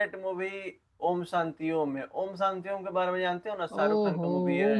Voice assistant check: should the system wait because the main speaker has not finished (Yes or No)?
No